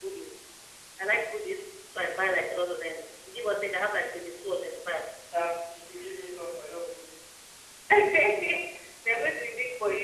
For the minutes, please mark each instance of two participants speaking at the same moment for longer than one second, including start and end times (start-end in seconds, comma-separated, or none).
none